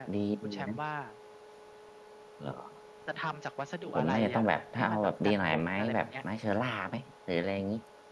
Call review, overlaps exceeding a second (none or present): present